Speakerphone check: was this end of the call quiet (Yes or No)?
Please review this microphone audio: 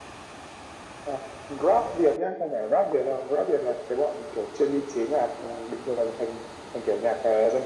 Yes